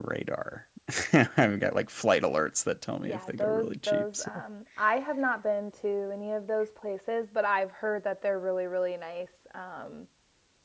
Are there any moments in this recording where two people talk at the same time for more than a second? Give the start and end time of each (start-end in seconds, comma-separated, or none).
3.1-4.3